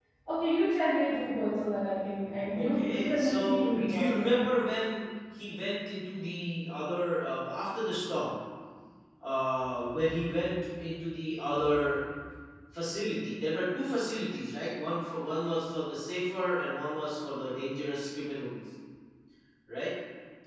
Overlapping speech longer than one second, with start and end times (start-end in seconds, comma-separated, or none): 2.5-4.5